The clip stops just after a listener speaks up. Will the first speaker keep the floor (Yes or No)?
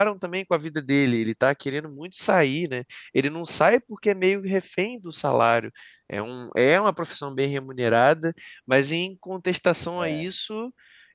Yes